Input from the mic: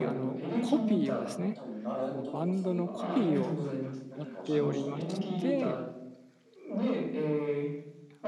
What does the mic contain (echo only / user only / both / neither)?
both